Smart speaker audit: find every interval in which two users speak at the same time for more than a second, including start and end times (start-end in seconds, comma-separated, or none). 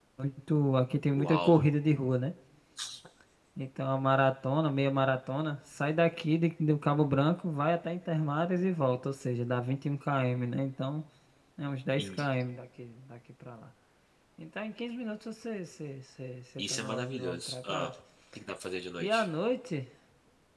16.7-17.9